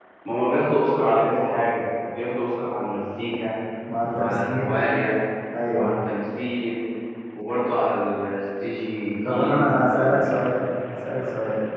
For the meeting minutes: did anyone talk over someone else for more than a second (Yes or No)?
Yes